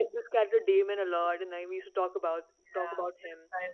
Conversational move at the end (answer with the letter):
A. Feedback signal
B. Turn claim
B